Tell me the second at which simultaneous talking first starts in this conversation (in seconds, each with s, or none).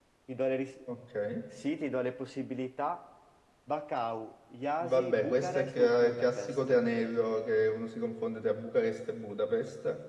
4.8 s